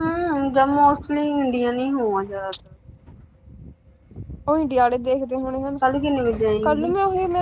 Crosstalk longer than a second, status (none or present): none